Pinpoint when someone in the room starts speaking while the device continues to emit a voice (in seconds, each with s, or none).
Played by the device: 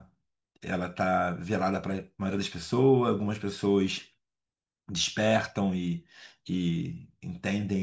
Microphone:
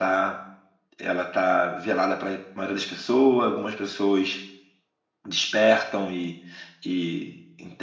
none